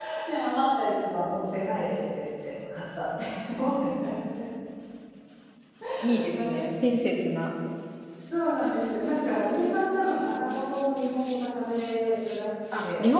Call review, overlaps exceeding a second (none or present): none